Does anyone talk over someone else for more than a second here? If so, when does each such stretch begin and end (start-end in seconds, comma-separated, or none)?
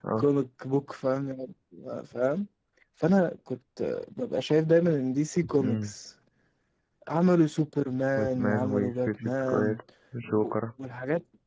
8.2-9.8